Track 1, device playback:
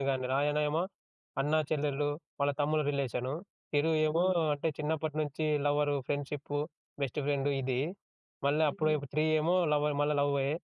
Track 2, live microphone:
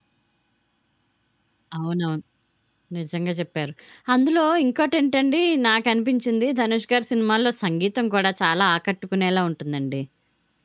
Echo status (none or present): none